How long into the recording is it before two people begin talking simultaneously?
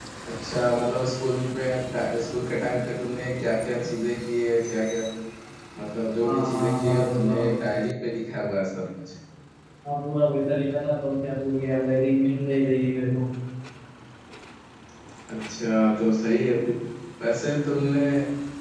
6 s

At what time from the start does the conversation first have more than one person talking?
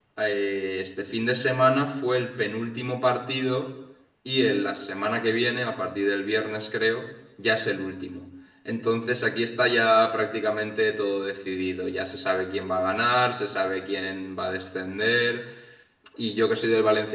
none

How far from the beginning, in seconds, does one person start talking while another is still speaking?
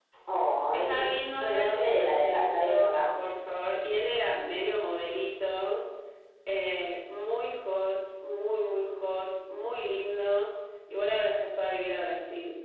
1 s

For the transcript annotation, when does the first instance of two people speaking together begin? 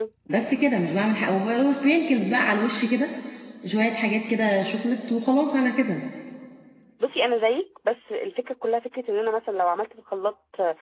none

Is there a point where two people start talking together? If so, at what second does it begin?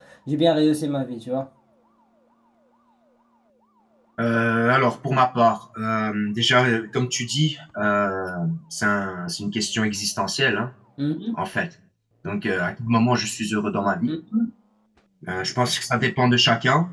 none

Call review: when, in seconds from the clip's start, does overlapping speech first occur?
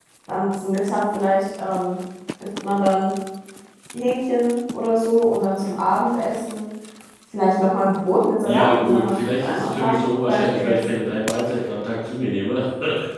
8 s

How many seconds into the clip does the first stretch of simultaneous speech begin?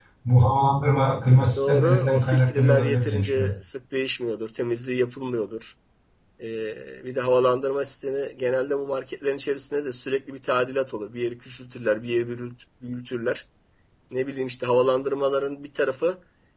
2 s

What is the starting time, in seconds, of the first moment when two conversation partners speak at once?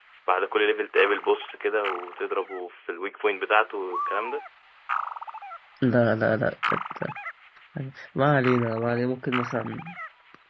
none

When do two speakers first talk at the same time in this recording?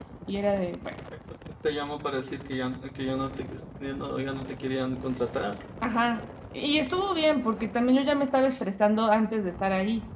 none

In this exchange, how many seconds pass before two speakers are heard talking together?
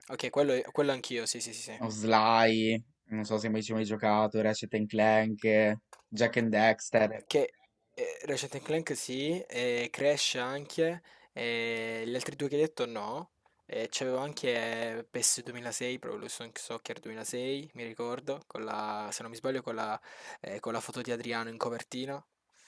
none

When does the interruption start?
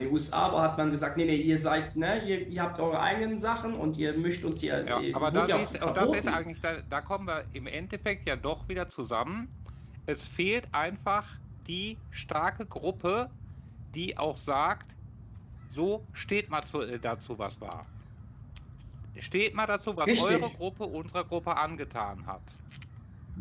5 s

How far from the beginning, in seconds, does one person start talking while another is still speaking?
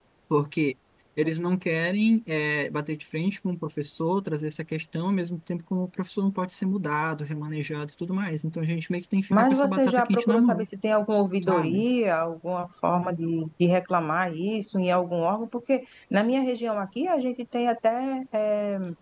9 s

